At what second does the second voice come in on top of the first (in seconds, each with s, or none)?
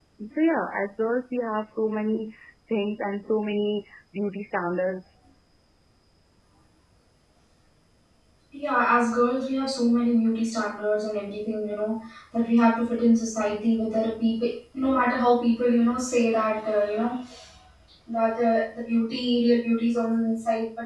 none